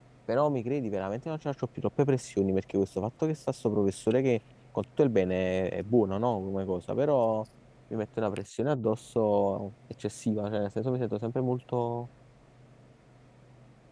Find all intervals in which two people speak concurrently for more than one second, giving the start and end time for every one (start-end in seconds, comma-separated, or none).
none